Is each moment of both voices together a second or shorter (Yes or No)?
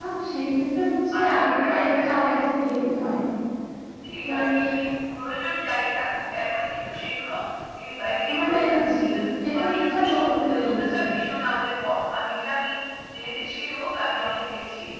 No